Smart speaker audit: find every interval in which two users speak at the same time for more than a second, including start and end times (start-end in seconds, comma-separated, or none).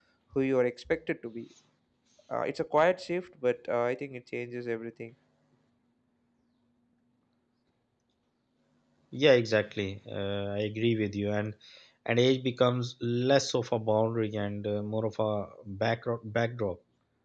none